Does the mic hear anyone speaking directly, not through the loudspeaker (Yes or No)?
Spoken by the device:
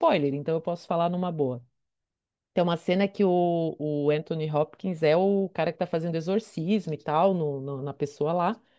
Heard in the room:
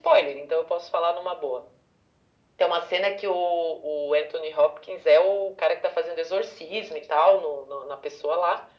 No